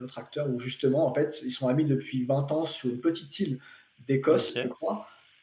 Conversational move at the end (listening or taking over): listening